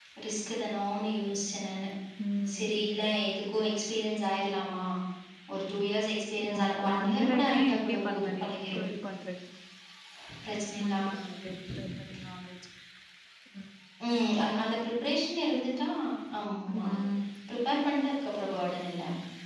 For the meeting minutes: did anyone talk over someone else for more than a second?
Yes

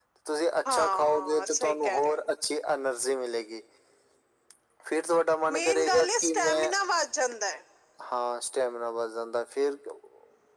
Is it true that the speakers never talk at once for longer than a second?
No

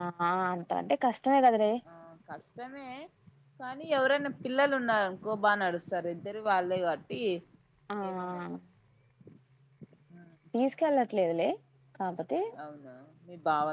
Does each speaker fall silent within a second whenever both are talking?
Yes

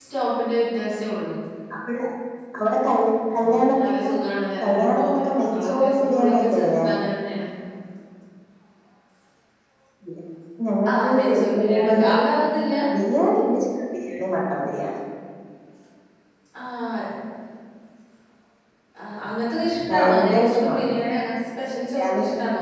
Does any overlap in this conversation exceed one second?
Yes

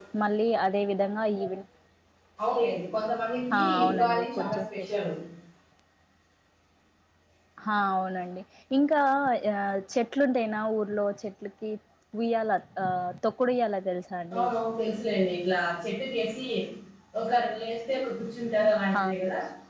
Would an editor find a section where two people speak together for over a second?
Yes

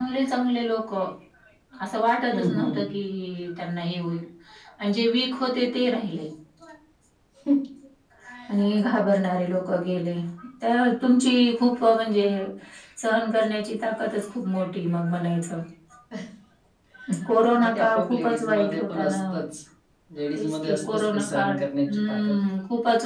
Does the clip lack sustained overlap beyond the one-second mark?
No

